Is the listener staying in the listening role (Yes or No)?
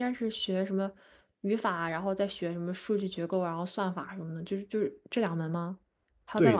No